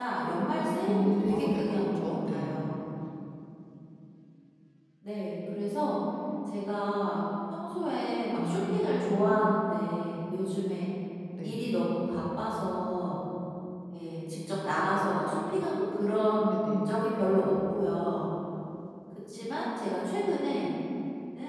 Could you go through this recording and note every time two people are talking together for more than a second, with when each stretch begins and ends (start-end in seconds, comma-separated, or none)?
0.8-2.7